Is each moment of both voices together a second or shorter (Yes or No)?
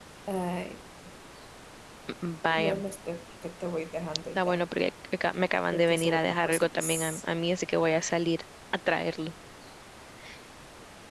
No